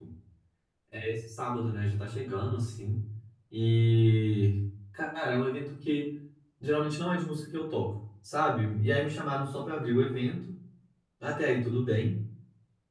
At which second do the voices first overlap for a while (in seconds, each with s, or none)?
none